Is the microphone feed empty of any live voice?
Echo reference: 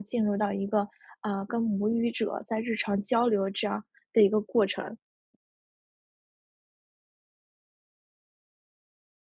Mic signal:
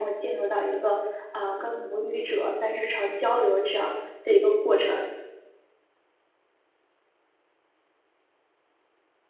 Yes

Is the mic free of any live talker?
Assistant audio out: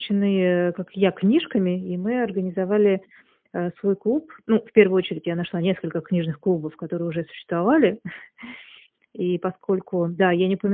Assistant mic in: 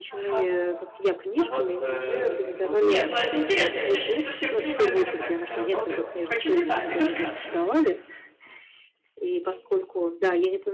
No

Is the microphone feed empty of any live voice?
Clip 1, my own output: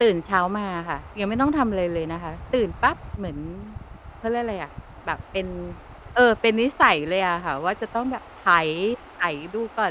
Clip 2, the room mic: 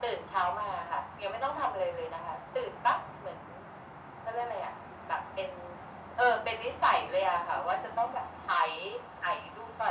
Yes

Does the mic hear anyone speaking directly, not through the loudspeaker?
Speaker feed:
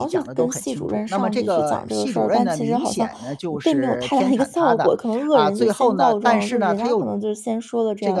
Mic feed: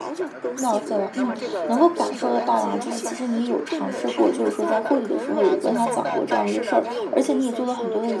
Yes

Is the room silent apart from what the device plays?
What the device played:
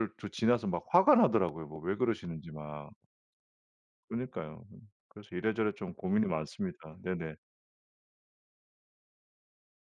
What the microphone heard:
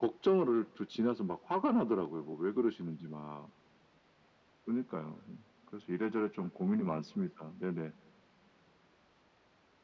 Yes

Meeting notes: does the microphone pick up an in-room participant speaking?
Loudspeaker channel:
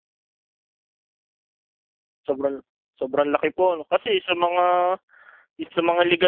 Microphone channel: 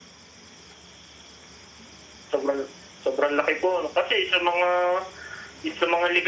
No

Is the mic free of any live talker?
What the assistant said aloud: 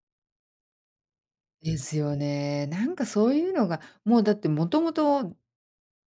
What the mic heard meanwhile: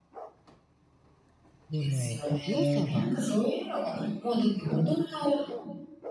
No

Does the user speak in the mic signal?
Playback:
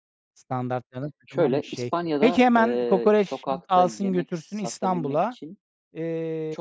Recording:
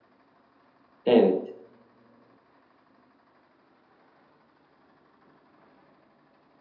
Yes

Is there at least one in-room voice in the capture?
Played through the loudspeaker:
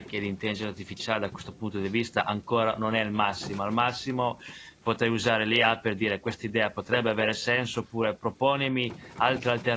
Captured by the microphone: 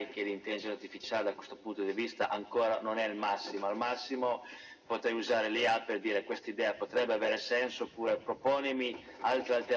No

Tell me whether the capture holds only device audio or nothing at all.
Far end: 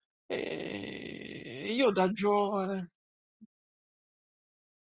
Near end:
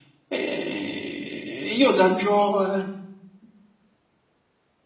Yes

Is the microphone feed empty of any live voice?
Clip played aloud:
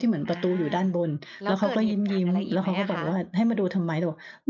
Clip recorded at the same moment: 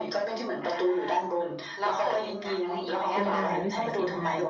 No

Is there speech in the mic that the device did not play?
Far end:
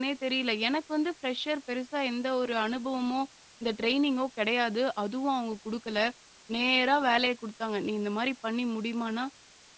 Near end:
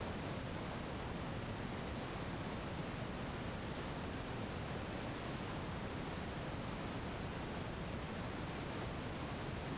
No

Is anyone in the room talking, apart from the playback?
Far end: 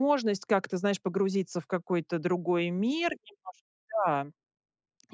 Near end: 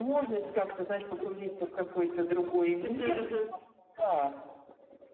Yes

